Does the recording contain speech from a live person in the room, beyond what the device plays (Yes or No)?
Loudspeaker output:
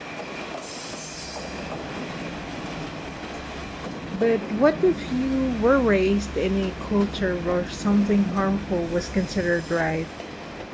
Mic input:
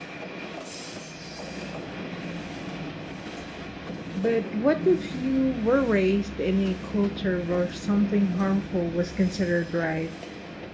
No